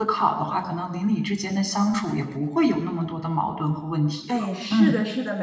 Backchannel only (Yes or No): No